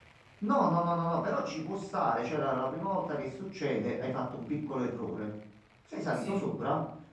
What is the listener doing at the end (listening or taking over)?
listening